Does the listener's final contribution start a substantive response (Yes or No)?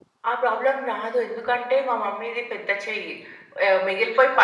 No